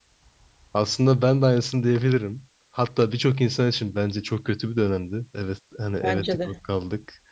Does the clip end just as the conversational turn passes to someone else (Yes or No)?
No